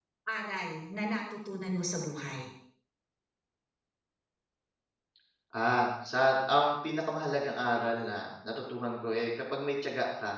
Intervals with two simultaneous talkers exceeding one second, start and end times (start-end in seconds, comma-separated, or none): none